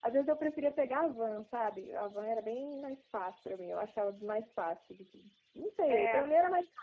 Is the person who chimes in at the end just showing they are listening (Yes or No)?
Yes